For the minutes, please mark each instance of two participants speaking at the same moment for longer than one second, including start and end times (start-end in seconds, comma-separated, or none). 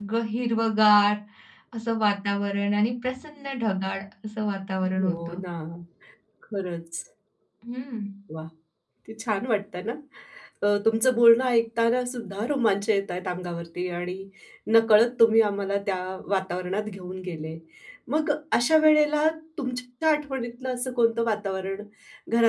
none